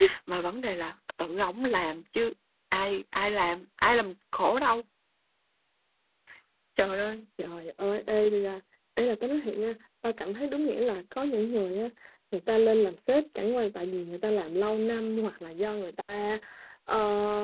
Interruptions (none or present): none